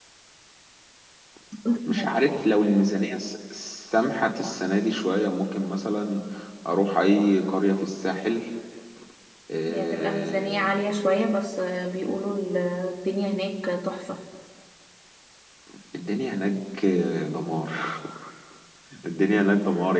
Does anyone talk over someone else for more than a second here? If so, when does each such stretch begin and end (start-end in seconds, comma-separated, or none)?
9.7-11.0